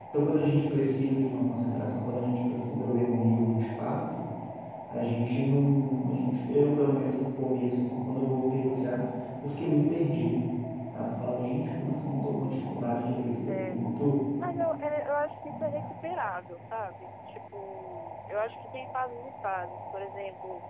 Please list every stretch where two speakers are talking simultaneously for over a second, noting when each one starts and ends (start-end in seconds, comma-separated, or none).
none